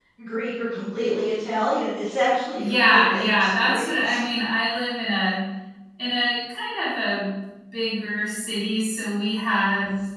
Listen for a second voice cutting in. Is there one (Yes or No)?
Yes